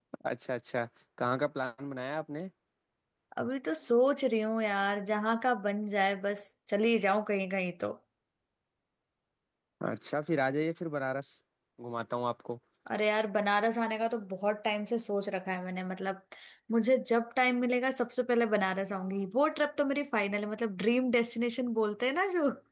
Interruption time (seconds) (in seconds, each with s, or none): none